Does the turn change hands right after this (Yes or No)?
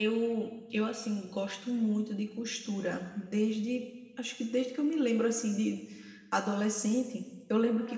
No